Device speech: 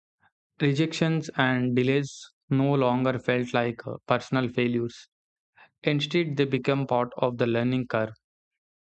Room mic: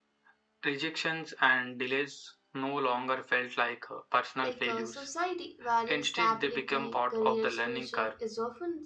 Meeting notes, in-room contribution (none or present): present